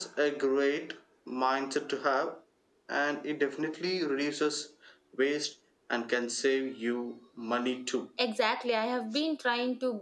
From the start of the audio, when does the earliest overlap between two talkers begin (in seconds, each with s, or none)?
none